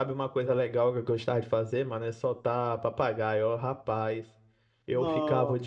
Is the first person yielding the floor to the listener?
No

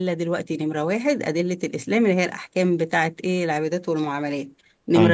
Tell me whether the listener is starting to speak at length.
No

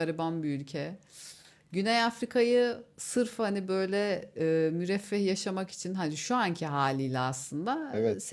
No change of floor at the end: Yes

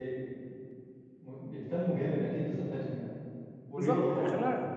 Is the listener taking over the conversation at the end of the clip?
Yes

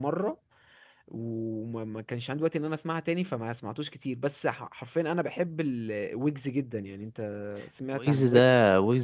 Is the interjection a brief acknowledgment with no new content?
No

